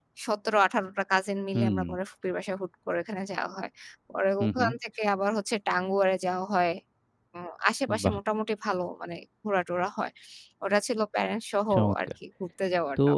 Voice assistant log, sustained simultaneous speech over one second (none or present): none